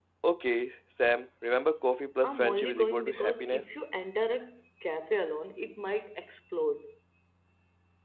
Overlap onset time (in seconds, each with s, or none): 2.2 s